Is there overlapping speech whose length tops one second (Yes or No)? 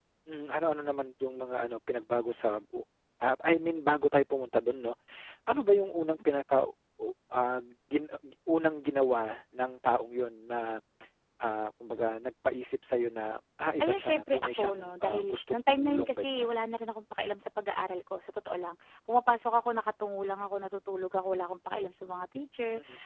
Yes